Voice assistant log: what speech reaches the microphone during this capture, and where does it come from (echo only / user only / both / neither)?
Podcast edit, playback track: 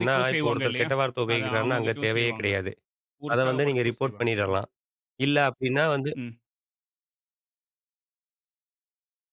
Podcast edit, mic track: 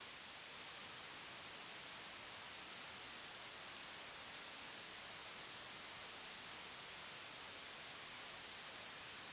neither